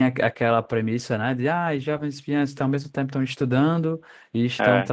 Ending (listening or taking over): listening